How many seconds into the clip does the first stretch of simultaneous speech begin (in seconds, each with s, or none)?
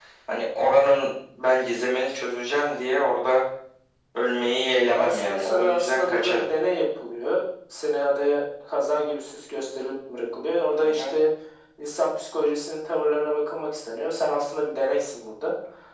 4.9 s